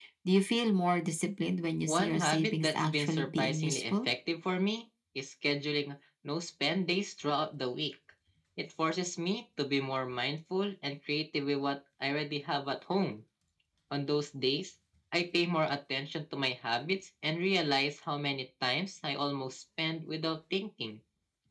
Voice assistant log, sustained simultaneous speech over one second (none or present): present